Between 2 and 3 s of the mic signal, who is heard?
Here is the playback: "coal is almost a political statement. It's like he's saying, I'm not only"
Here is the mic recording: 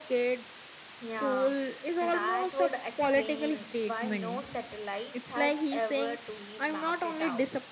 both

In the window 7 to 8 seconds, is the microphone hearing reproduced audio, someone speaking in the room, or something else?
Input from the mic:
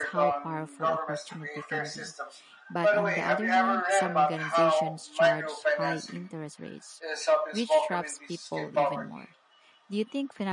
both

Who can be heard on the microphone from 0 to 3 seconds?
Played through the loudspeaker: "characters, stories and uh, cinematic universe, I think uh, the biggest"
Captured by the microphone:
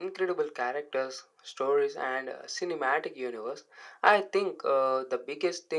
echo only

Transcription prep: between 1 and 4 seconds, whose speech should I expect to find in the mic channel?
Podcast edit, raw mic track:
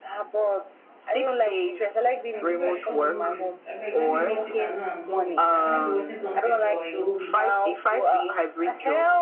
both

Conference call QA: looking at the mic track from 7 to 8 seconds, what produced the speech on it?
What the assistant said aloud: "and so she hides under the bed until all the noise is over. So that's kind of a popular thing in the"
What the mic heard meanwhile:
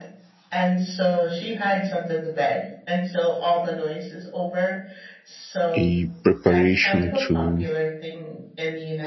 both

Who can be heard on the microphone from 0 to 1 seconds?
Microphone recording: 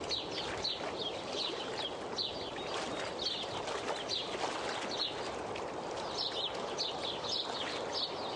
neither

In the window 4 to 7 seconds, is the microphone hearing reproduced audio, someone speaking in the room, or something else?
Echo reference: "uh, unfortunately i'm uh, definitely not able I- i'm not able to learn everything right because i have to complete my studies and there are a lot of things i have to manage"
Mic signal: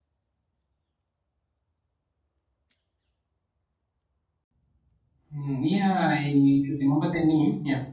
user only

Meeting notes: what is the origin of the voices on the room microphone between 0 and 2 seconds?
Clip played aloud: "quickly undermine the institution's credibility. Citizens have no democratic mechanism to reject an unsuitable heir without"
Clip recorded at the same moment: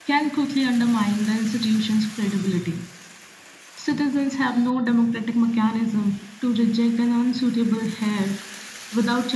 echo only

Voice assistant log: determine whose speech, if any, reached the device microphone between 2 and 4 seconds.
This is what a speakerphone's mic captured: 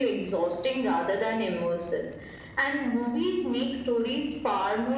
echo only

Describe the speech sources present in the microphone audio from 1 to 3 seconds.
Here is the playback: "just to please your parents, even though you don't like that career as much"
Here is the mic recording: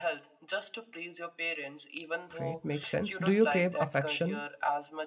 both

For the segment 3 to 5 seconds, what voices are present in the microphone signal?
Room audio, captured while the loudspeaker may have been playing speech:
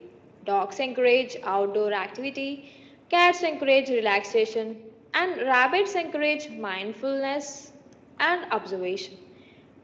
echo only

